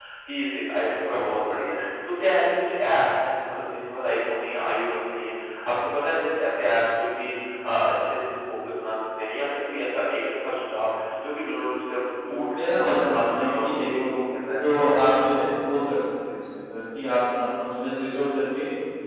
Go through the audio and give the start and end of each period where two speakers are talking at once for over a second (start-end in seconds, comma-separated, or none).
12.2-14.1